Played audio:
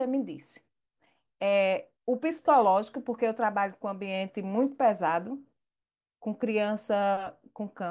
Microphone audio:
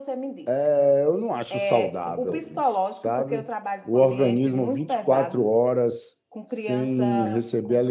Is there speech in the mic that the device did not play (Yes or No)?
Yes